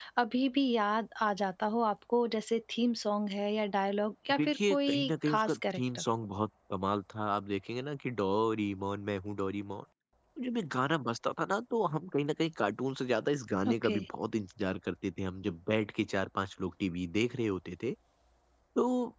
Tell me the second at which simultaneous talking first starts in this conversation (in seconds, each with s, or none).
4.4 s